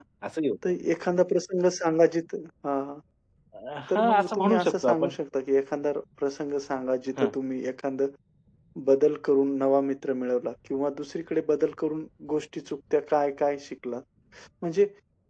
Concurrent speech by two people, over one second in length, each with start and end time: 3.9-5.2

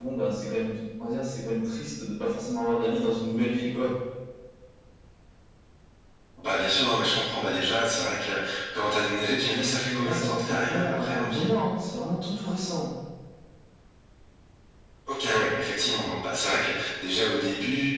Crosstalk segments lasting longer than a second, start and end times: 9.6-11.5

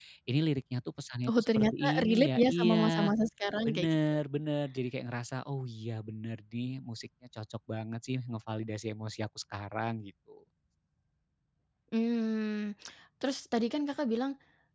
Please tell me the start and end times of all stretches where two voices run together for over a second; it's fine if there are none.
1.3-3.1

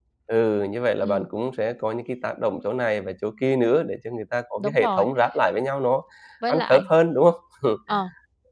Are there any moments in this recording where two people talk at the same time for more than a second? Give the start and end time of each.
none

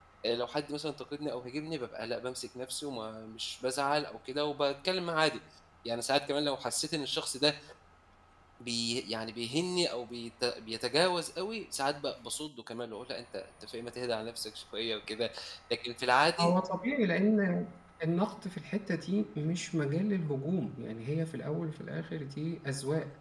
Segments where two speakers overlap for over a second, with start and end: none

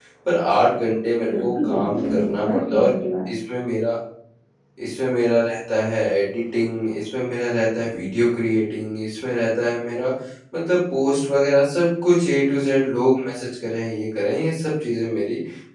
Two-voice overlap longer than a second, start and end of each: 1.4-2.9

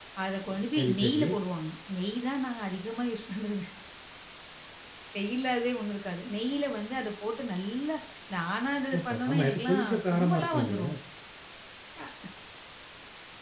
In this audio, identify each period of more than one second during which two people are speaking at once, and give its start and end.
9.0-10.9

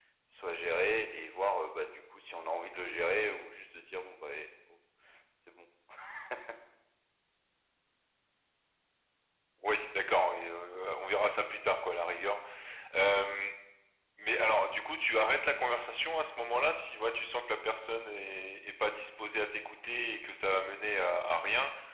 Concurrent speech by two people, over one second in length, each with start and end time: none

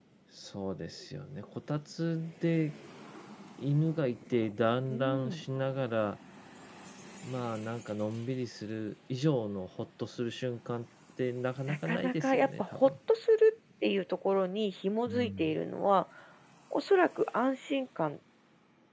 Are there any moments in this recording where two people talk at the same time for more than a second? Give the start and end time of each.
11.7-12.9

